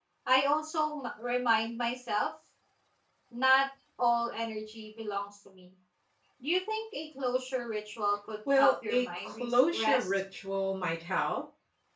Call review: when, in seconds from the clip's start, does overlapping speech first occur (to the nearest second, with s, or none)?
8 s